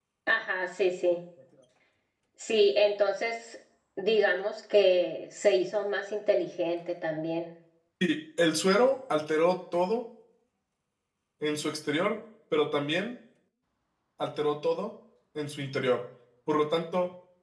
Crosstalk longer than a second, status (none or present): none